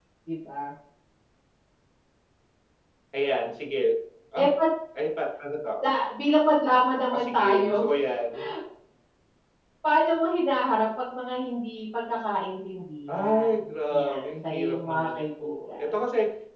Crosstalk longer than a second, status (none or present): present